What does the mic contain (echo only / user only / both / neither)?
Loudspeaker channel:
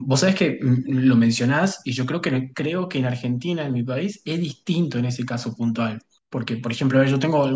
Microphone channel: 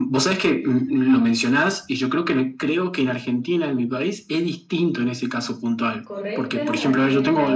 both